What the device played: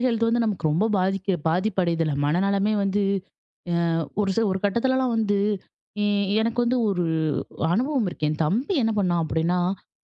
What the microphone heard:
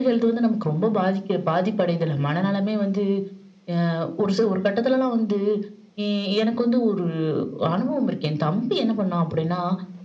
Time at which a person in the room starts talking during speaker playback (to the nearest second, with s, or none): none